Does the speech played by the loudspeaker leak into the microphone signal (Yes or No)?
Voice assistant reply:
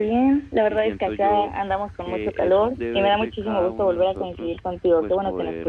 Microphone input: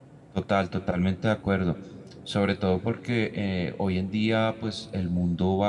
No